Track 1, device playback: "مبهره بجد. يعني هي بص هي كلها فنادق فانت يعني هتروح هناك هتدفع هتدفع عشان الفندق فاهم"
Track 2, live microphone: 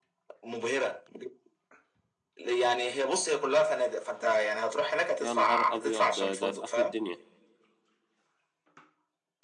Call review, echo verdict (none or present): present